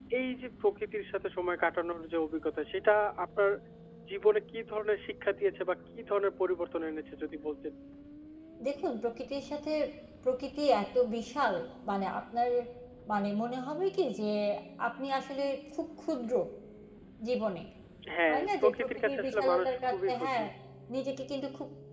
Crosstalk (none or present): present